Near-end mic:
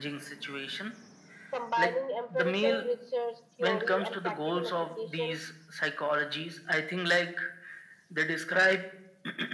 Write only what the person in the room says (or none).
combining empirical research, theory, and practical application